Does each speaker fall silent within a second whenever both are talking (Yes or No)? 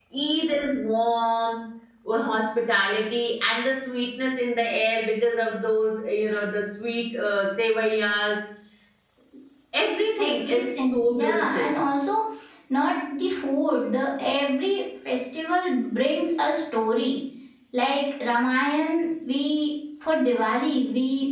No